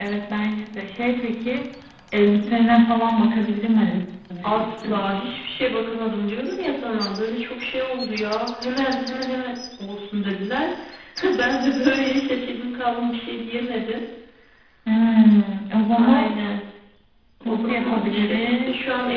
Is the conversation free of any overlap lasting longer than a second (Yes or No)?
No